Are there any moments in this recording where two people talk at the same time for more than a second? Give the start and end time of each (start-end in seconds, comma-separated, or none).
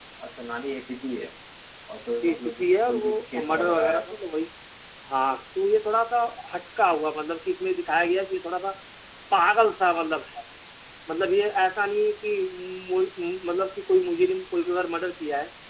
2.2-4.0